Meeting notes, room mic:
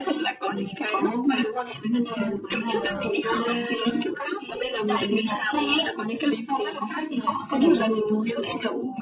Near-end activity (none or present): none